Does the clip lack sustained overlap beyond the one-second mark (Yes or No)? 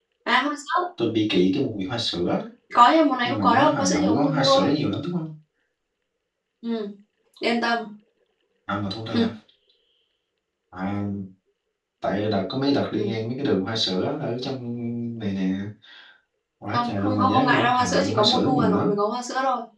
No